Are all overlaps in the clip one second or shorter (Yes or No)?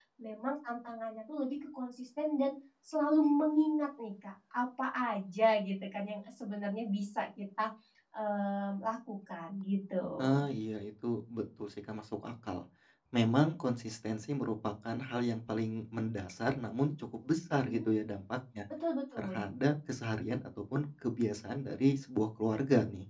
Yes